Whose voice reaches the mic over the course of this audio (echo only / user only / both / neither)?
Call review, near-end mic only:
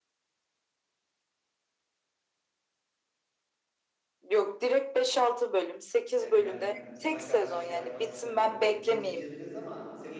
both